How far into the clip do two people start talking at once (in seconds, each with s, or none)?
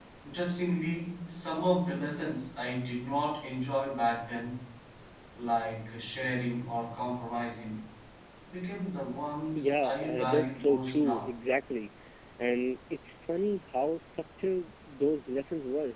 9.5 s